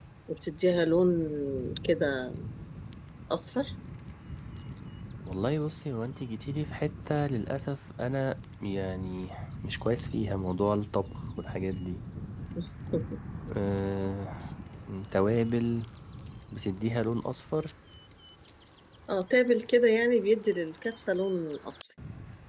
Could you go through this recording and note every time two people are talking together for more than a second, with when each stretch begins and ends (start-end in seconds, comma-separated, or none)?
none